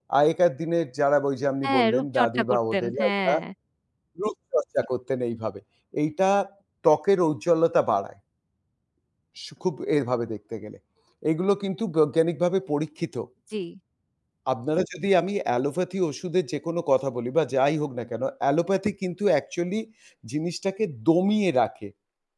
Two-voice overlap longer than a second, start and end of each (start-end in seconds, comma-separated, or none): 1.7-3.3